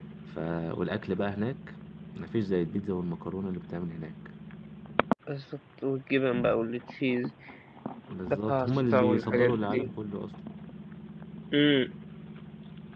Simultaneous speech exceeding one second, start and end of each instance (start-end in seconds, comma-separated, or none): 8.3-9.9